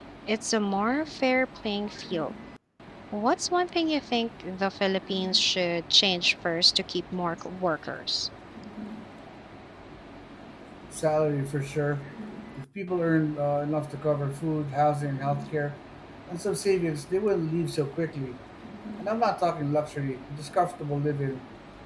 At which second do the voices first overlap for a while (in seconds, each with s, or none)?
none